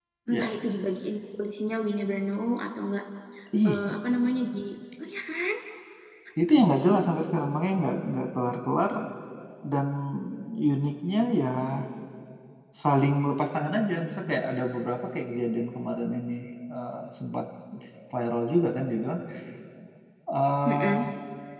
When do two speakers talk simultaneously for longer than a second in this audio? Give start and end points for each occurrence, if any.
none

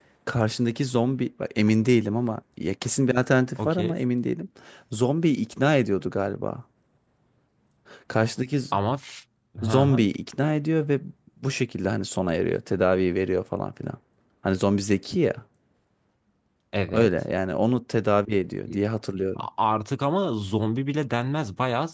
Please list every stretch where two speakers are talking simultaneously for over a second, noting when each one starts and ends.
none

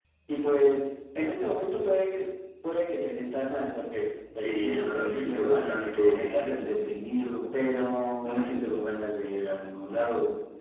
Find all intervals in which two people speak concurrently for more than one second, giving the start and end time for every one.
4.4-6.7

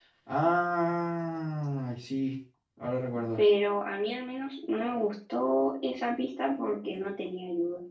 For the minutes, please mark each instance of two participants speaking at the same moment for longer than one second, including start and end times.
none

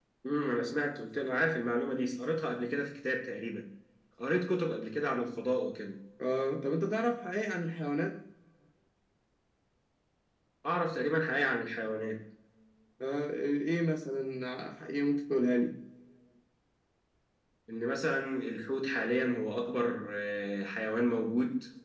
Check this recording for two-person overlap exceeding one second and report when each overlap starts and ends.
none

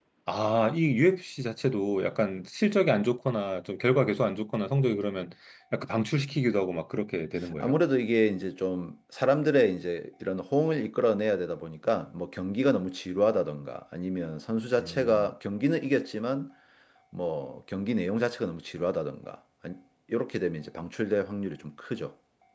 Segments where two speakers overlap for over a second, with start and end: none

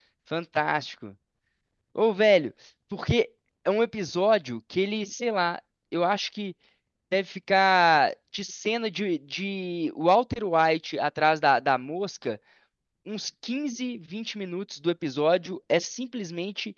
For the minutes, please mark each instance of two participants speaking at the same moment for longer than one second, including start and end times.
none

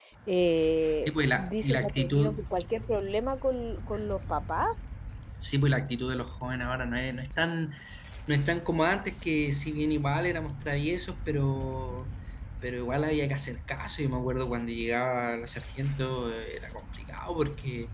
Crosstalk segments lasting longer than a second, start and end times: 1.1-2.4

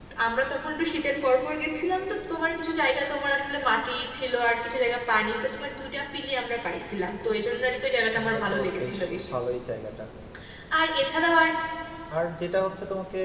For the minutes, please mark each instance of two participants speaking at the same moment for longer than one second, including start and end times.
8.1-9.3

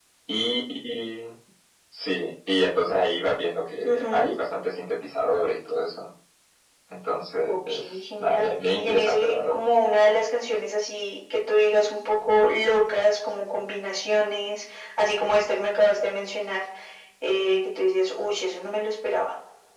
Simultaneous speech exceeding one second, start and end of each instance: 7.5-9.6

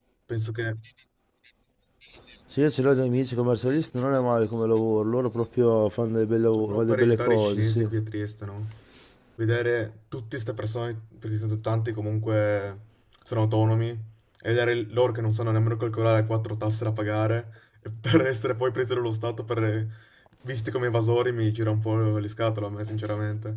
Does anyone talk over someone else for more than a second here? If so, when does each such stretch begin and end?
6.6-7.9

